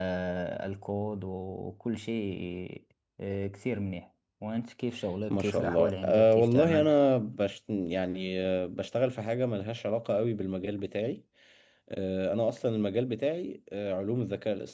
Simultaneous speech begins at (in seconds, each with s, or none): 5.3 s